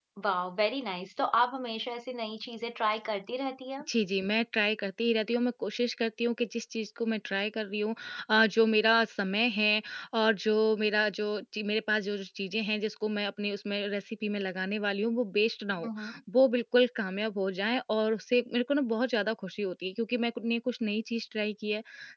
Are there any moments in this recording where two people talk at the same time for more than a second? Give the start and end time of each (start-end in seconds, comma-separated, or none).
none